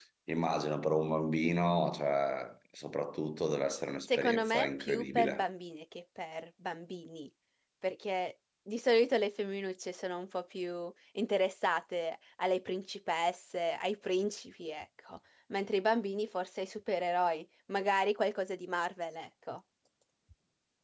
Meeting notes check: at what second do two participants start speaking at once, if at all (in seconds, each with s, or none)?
4.1 s